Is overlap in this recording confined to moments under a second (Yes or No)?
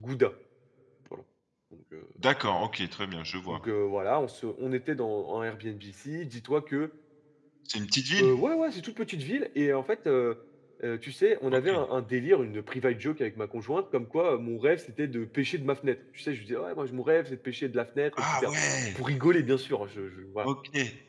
Yes